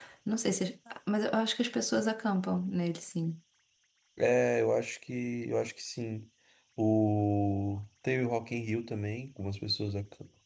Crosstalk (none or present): none